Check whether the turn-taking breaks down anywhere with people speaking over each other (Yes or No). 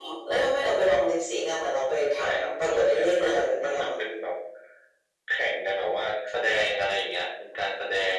Yes